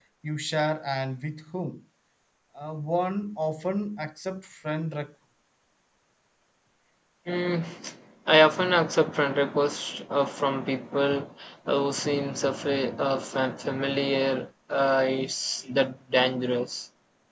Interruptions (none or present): none